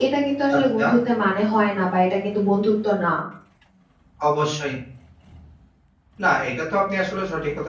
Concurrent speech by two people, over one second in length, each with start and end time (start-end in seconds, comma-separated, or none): none